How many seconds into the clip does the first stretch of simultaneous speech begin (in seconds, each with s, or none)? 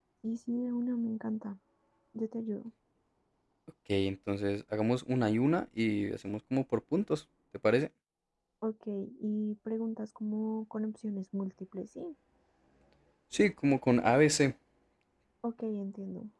none